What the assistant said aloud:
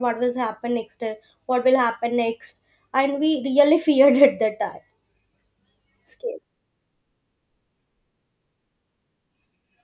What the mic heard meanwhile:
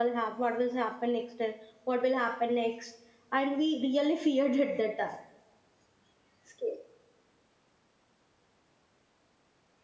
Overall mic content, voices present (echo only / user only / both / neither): echo only